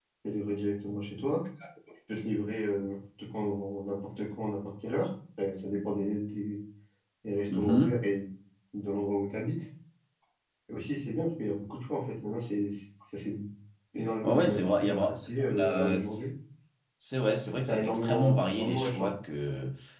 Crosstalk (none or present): present